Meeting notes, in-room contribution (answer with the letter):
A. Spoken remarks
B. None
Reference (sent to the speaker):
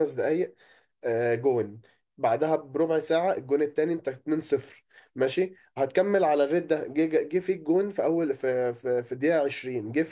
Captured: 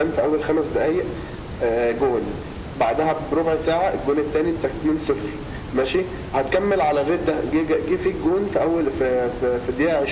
B